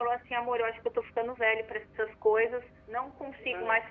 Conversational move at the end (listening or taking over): listening